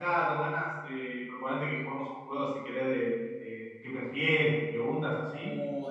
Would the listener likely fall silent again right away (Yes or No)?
No